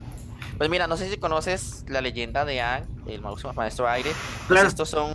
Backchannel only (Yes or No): Yes